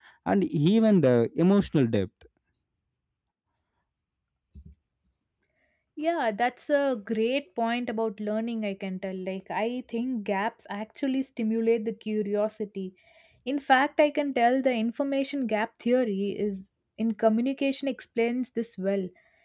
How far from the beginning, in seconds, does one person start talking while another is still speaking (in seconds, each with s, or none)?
none